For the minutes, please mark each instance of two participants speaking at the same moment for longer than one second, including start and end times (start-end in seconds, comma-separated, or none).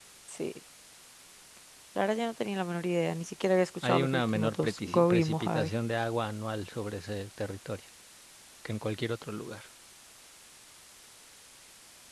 3.8-5.7